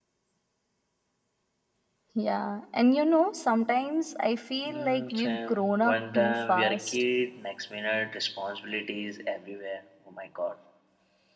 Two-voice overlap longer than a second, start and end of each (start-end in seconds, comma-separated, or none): 4.7-7.0